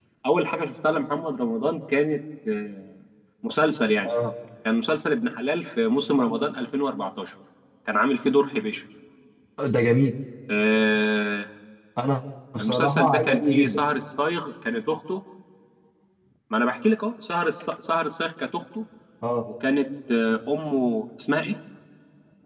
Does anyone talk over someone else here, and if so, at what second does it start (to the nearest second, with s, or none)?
13 s